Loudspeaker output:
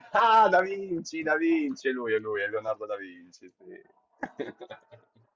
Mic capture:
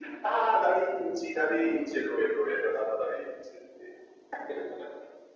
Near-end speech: none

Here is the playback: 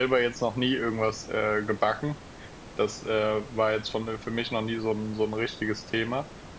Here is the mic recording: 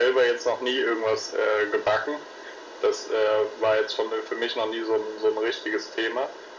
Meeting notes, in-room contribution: none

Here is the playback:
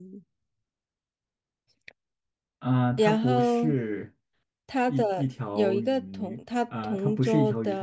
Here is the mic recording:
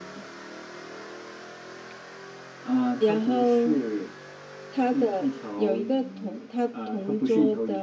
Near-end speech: none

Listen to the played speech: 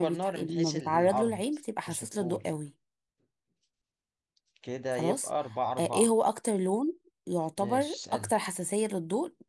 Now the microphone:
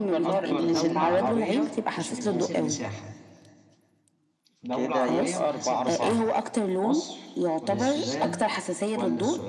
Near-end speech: present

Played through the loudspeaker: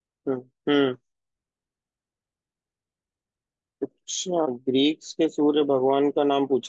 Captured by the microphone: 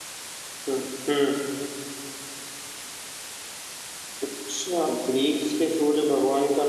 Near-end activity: none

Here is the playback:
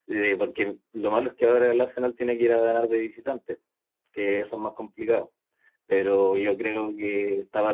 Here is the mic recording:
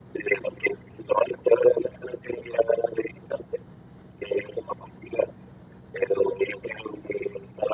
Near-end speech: none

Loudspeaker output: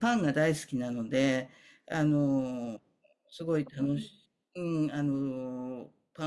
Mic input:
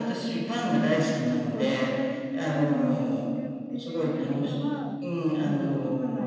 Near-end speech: present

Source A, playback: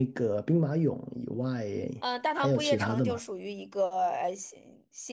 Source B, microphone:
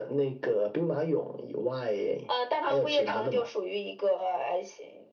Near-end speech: none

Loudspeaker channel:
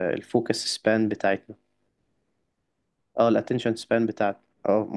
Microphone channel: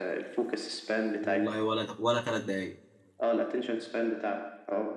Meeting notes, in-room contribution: present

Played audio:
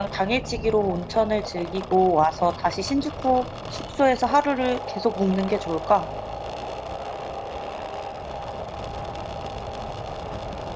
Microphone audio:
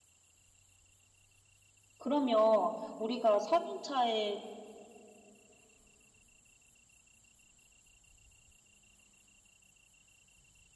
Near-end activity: present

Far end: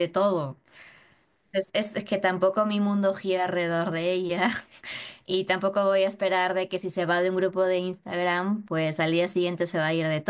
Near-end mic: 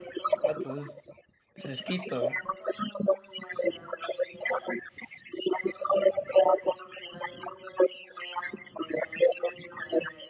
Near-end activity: present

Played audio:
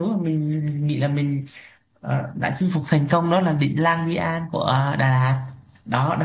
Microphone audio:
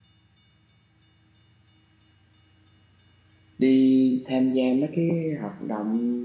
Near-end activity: present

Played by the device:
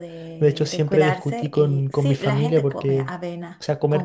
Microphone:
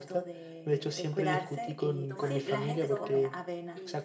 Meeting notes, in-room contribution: present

